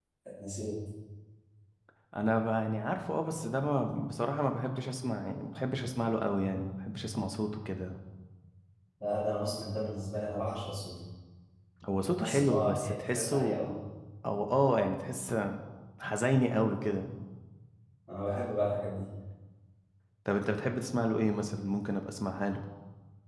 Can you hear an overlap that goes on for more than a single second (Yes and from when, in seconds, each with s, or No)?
Yes, from 12.2 s